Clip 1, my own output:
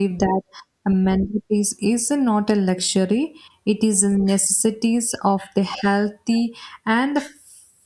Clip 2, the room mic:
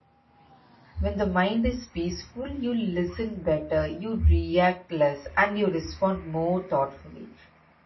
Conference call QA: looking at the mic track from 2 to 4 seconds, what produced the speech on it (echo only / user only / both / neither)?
user only